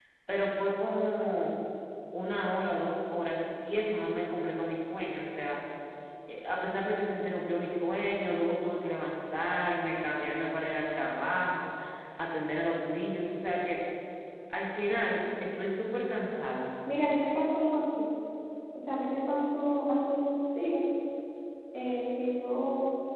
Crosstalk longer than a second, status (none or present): none